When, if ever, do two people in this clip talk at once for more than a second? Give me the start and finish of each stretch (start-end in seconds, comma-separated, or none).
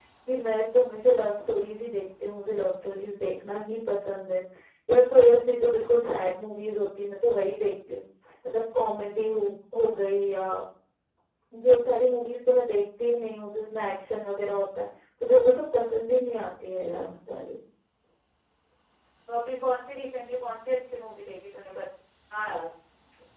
none